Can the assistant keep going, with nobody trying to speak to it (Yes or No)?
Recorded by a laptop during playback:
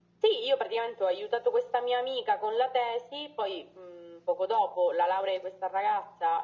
Yes